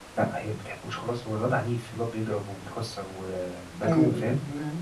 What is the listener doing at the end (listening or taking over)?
taking over